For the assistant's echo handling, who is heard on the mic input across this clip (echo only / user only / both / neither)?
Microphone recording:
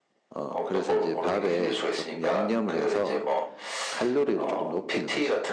both